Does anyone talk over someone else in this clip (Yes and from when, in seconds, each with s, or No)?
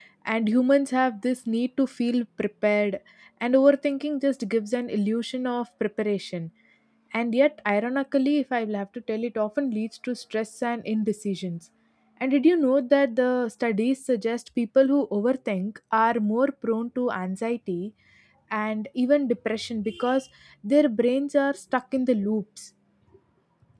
No